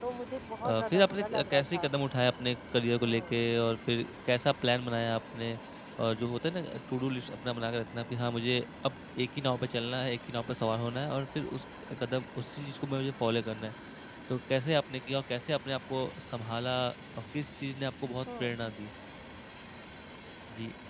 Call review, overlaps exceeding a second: present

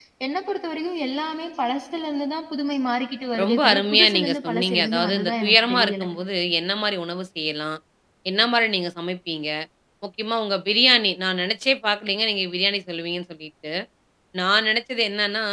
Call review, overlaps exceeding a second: present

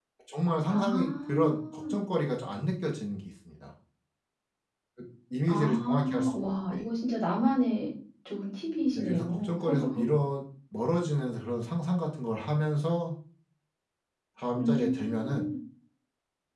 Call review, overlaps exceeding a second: present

